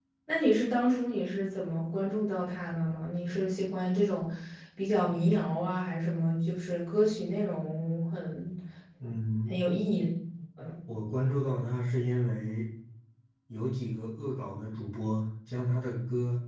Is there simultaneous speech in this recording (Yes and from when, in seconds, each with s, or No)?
No